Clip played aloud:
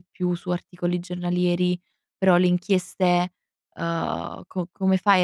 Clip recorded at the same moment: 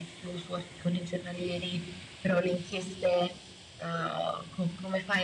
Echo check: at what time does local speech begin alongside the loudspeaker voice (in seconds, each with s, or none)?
none